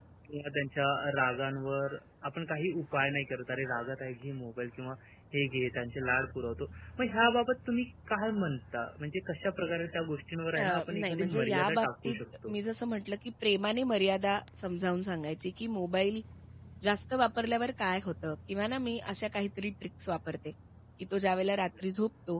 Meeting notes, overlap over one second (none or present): present